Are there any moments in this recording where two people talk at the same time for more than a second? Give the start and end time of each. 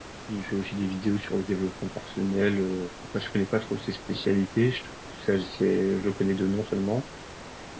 none

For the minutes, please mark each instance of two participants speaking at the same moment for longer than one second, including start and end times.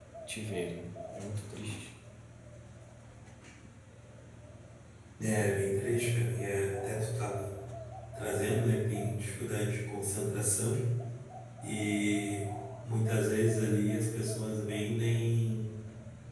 none

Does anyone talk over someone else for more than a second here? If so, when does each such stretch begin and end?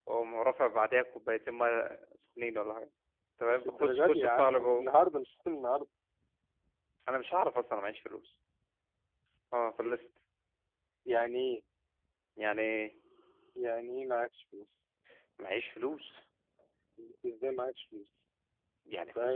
3.5-4.9

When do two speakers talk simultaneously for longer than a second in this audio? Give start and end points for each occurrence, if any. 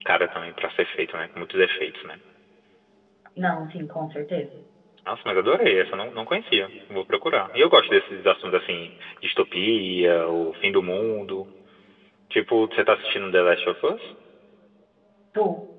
none

